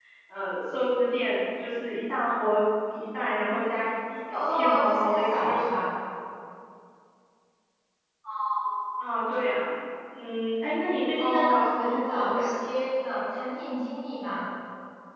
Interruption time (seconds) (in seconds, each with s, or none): 4.3 s